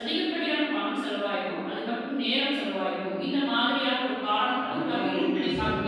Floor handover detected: Yes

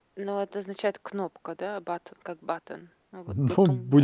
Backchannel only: No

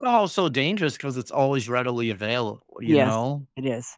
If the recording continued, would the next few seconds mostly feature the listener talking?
Yes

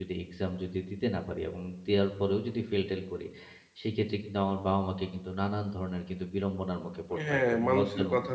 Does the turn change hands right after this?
Yes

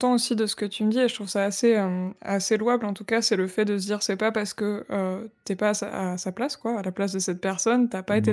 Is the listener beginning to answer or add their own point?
No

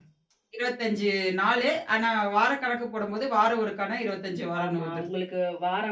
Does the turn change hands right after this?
Yes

